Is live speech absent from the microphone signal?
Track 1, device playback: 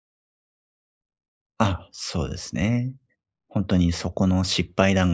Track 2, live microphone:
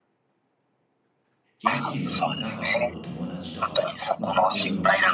No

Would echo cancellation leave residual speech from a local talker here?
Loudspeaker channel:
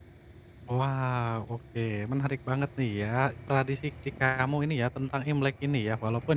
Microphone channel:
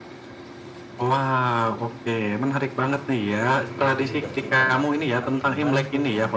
Yes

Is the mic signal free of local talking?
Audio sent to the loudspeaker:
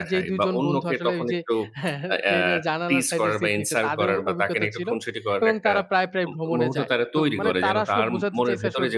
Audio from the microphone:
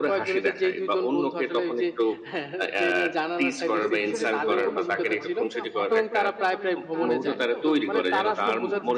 No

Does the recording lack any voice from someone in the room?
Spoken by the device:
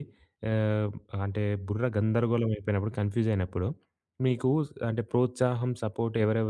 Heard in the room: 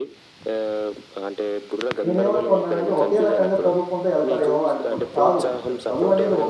No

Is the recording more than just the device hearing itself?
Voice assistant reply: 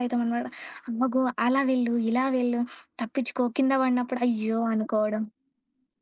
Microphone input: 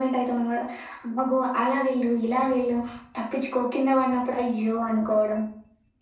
No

